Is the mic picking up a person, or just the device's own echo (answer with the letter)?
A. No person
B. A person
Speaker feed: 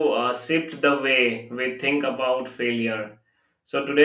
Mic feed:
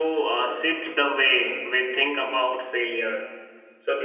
A